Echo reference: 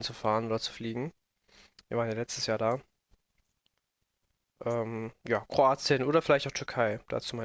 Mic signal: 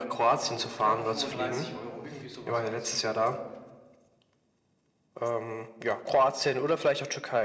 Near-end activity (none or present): present